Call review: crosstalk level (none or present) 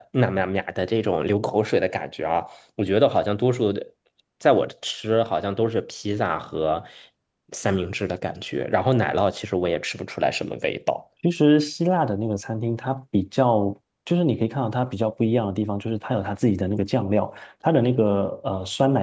none